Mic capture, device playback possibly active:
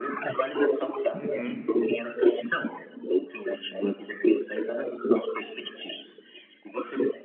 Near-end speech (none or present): present